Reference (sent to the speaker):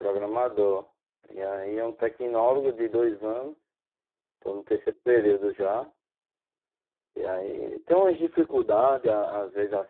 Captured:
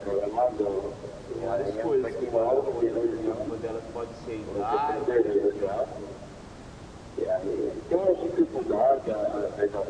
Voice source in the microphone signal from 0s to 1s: echo only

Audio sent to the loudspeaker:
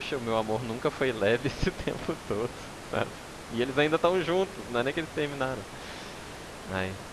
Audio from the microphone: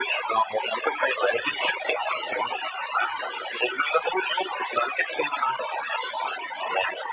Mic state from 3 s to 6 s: echo only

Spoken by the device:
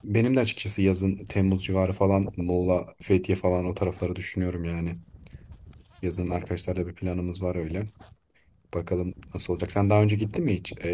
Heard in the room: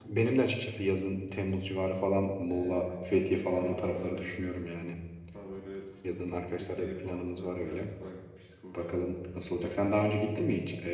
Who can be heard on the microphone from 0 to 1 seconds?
echo only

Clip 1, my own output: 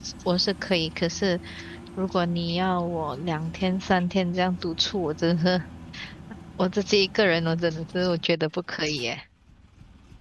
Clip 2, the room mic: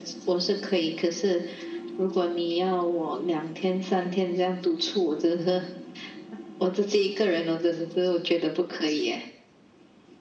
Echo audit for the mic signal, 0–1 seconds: echo only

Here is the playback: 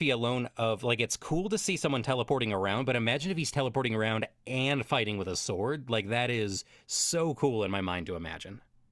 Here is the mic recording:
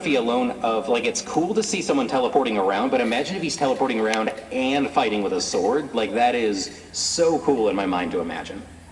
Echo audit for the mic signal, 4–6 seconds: echo only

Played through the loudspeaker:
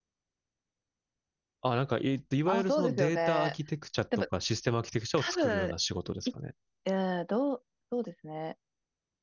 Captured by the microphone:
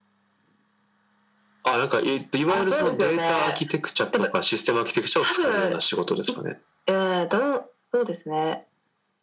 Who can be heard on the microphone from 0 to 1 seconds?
neither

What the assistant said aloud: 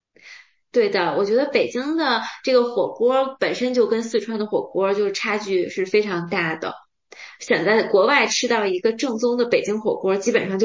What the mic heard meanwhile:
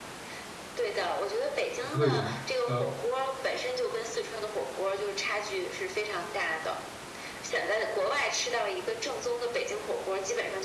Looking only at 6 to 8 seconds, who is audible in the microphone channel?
echo only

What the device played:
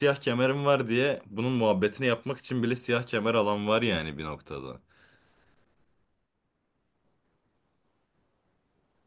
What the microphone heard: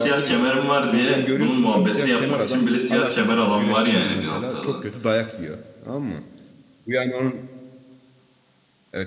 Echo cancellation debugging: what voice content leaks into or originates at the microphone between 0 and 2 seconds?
both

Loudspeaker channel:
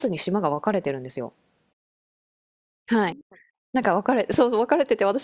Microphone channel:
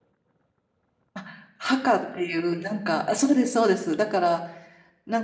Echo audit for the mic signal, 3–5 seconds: user only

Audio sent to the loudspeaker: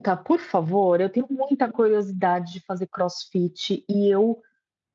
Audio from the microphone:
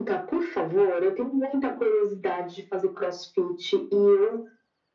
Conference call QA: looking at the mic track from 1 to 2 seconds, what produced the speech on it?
echo only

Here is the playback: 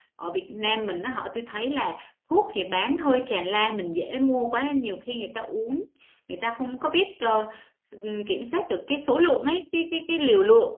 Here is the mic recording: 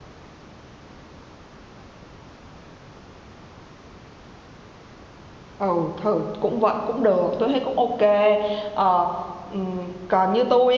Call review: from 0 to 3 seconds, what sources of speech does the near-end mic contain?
neither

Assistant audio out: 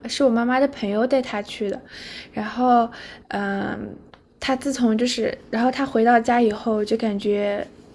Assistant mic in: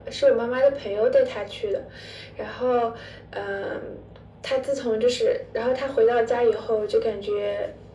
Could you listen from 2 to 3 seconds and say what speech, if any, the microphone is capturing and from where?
echo only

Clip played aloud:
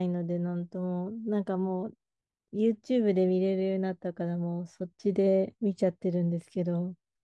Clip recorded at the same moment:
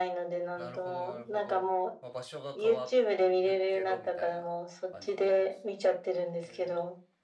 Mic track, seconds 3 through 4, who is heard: both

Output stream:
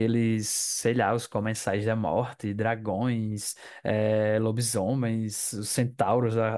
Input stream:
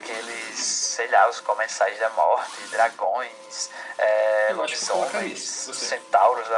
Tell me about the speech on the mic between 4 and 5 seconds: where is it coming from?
both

